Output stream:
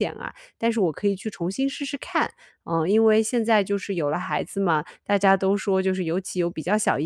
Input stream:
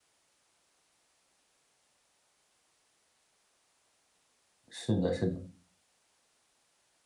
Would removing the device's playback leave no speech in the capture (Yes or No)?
No